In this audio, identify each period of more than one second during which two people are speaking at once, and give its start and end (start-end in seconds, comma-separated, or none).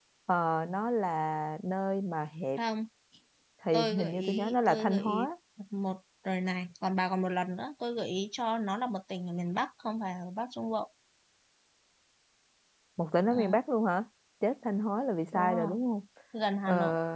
3.7-5.3